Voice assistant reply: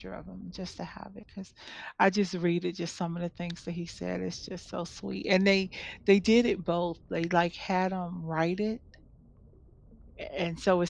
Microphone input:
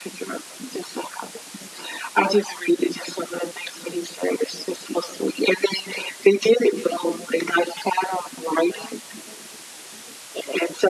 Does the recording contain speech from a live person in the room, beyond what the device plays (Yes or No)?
No